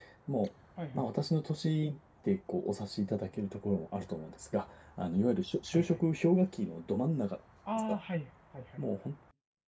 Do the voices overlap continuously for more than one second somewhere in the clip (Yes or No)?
No